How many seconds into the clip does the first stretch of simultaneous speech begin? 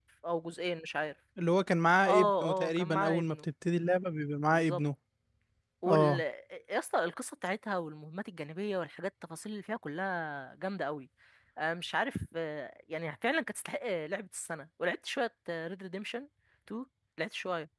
2 s

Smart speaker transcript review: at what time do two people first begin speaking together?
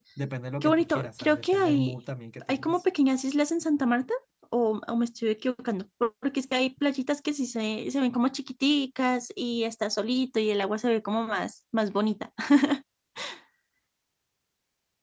1 s

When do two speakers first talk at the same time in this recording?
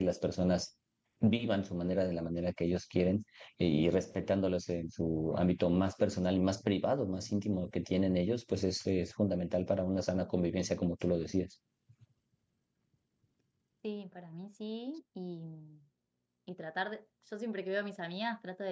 none

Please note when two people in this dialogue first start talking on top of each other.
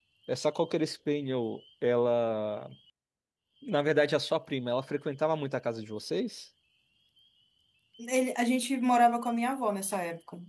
none

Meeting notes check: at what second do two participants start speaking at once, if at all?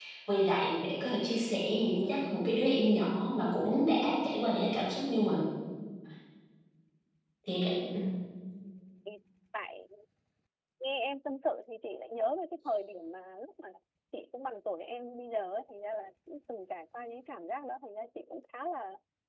none

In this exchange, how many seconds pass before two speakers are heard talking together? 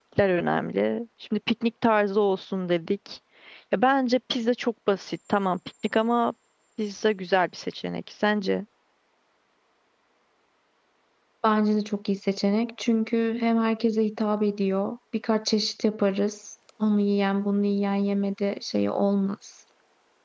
none

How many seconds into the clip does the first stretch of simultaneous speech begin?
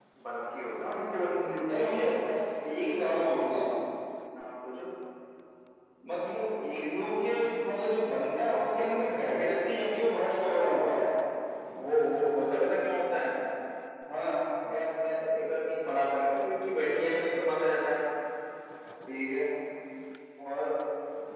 none

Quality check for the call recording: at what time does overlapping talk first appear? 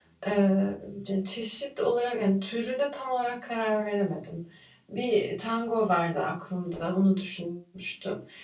none

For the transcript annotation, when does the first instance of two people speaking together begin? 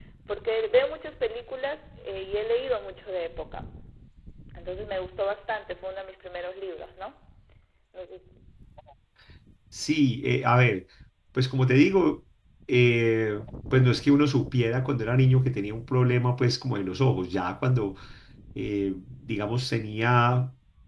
none

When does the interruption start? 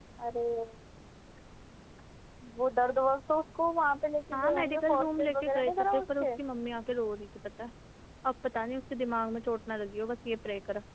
4 s

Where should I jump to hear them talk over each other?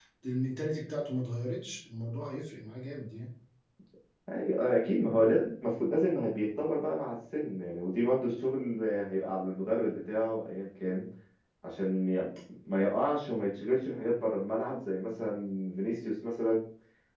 none

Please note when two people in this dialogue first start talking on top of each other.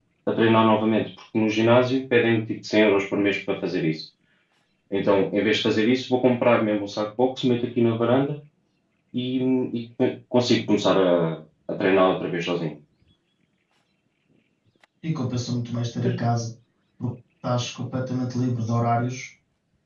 none

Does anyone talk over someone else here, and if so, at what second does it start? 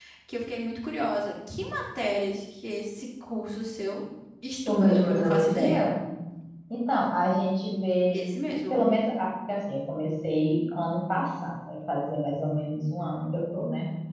5 s

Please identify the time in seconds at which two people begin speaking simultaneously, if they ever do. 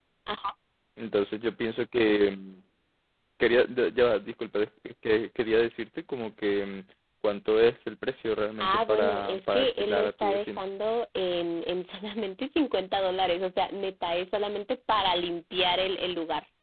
9 s

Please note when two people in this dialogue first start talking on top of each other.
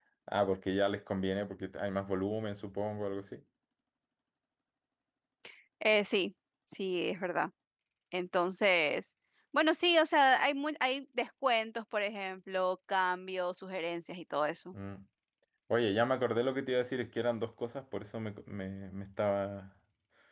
none

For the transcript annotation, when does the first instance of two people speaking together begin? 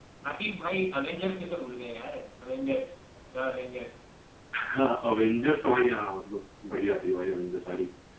none

